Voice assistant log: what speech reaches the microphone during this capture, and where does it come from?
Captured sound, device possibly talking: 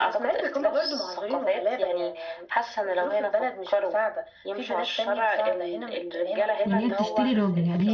both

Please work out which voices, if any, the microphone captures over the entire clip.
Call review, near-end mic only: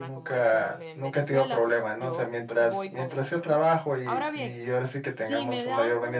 both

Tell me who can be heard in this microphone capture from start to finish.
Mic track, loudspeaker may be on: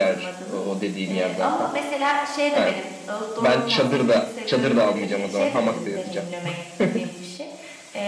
both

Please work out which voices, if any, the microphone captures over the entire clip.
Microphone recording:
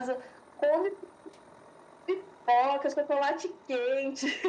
echo only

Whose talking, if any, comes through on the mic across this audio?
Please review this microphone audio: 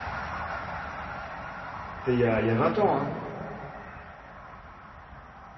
user only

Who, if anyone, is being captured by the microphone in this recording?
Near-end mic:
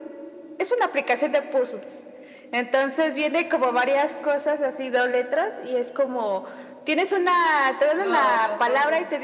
both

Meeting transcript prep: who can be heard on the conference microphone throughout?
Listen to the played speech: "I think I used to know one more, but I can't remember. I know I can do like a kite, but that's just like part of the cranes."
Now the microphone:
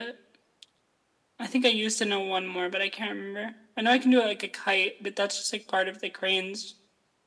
echo only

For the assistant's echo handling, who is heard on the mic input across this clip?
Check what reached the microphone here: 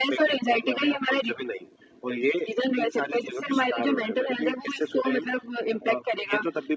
echo only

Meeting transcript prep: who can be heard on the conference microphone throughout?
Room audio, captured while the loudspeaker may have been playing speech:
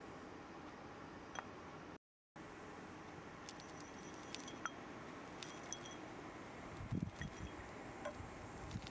neither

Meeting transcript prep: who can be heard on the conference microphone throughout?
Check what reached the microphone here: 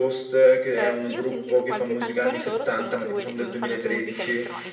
both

